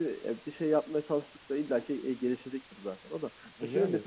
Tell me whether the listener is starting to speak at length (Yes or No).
No